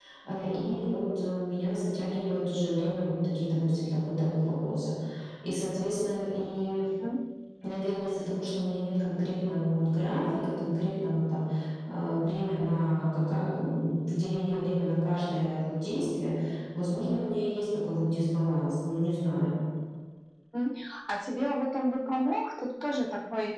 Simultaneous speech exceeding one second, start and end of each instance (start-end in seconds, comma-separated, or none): none